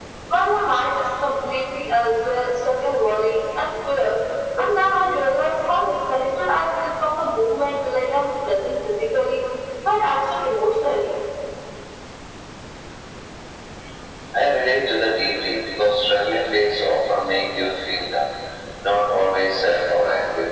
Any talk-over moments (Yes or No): No